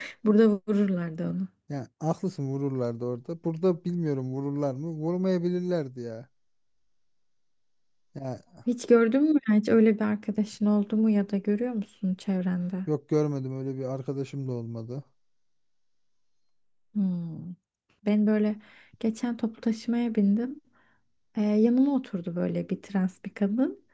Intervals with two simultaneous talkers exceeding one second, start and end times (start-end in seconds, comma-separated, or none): none